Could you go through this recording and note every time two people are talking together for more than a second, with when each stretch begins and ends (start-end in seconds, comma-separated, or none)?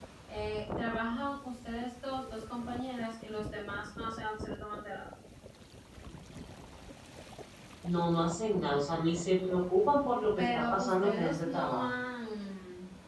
10.4-11.9